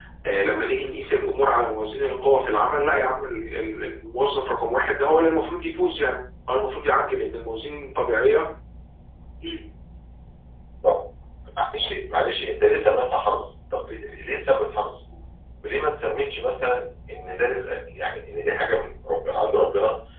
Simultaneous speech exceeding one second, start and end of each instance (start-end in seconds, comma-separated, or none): none